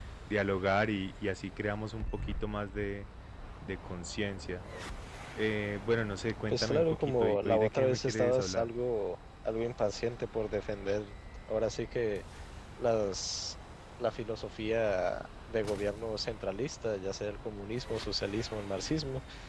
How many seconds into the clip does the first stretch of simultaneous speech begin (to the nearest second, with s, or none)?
6 s